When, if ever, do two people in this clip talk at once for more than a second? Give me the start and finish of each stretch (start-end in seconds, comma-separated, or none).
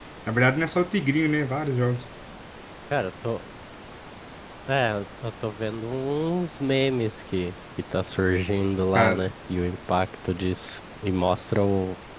none